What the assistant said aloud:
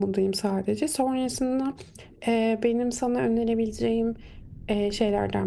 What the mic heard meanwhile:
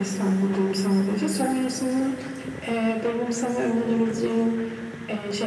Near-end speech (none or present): none